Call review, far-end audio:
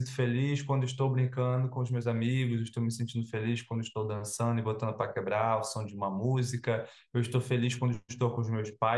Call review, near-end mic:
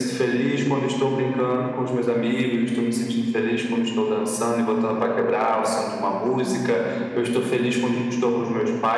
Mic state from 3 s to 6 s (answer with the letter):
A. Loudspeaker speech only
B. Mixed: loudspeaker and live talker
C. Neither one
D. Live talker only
A